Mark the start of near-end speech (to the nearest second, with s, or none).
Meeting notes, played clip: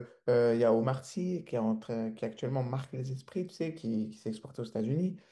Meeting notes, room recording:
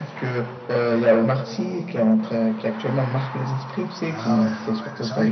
4 s